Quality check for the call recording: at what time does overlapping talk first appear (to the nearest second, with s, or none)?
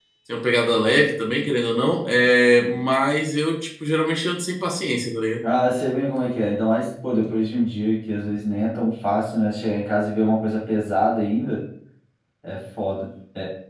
none